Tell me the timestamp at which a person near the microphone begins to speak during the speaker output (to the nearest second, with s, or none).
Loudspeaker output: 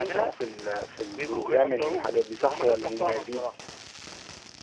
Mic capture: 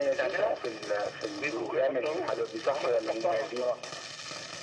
none